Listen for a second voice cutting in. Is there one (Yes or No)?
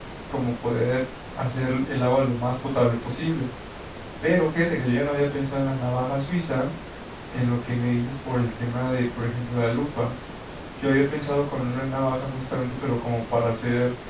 No